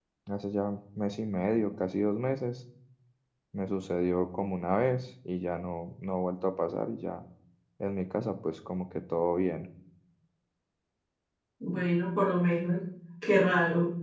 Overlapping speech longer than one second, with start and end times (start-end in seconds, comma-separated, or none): none